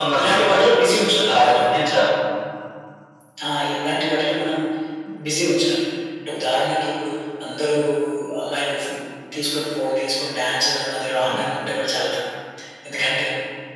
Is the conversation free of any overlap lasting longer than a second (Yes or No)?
Yes